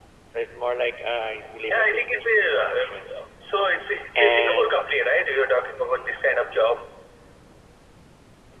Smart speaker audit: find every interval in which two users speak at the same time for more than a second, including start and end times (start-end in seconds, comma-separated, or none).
1.7-3.0